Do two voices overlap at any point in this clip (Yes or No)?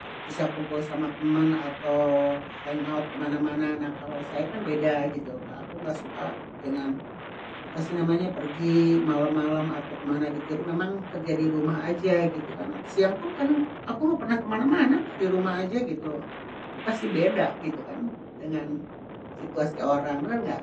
No